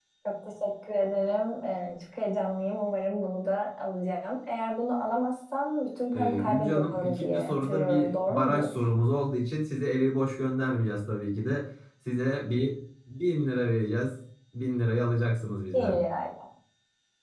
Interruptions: present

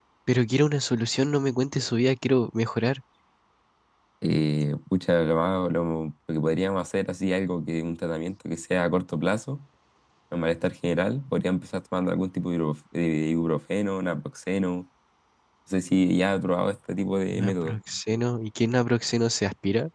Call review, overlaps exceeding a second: none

